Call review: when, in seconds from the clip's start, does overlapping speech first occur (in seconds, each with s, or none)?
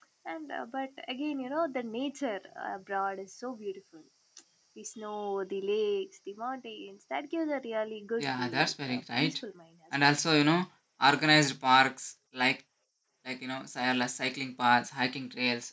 8.2 s